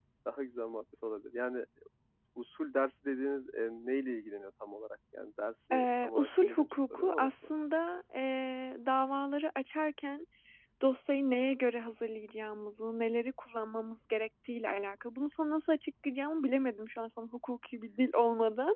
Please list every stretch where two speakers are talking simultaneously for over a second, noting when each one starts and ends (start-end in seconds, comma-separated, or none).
5.7-7.3